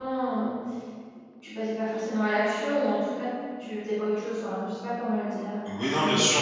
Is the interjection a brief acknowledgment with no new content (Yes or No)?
No